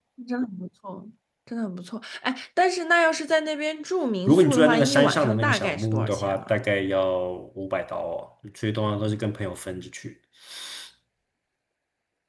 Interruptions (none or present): present